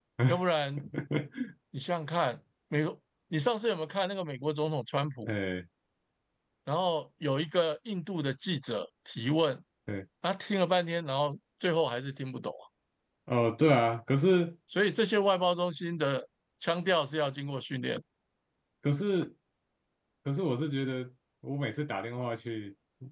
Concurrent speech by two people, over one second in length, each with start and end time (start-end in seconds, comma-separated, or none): none